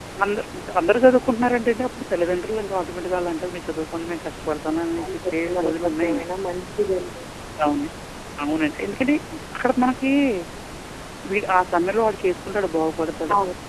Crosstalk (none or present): present